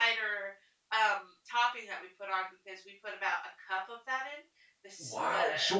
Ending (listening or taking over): taking over